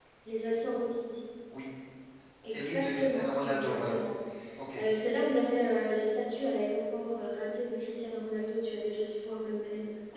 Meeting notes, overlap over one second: present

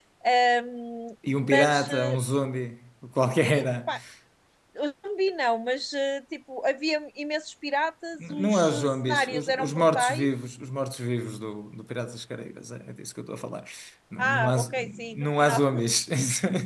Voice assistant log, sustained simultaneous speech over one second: present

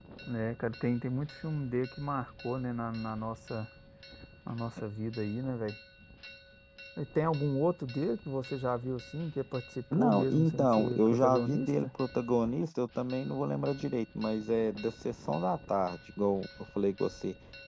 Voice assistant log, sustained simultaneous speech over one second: present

